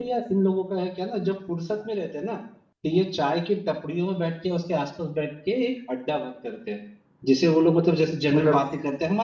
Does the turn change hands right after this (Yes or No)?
No